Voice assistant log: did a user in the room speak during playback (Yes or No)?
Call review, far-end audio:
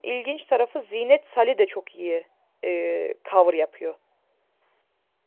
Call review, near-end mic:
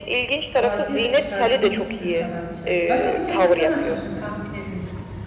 Yes